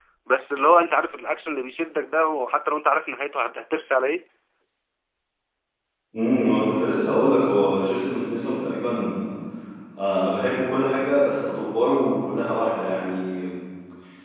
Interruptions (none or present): none